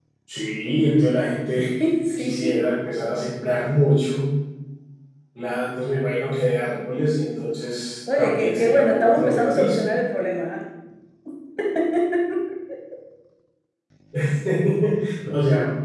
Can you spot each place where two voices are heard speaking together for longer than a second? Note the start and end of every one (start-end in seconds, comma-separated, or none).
8.2-9.8